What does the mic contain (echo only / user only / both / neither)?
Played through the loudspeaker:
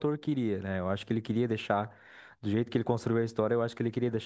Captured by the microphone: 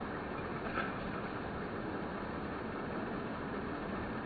neither